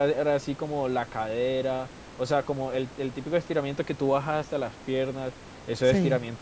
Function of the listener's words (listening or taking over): listening